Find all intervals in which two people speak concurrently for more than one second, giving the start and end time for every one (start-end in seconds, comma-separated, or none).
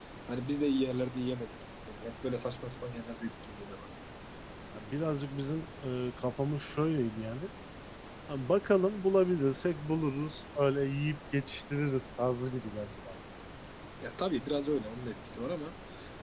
none